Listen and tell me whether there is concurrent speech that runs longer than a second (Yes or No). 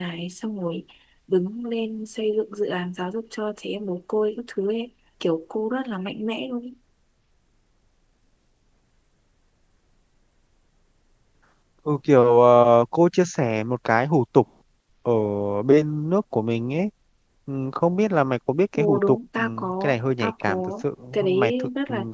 Yes